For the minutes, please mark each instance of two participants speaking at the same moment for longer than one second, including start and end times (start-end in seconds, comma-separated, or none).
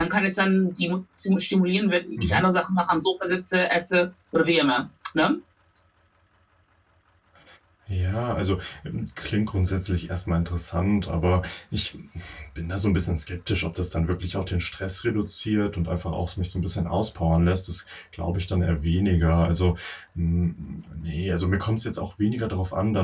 none